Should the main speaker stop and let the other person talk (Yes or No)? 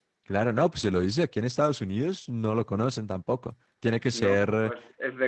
Yes